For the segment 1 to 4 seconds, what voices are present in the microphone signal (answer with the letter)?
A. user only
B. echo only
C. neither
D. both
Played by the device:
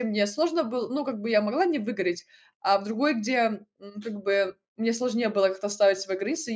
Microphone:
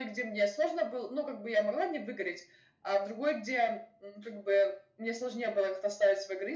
B